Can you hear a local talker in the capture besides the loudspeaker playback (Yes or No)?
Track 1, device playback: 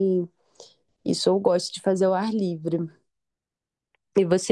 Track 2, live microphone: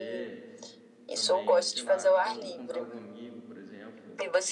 Yes